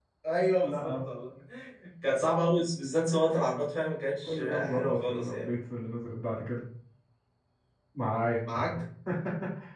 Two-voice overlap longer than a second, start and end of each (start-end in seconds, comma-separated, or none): 4.3-5.5